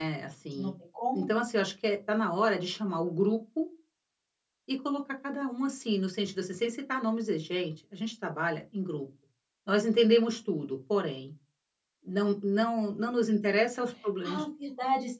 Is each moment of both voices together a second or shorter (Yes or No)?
Yes